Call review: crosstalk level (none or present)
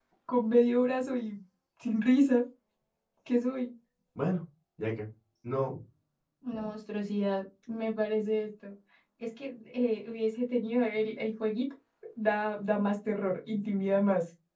none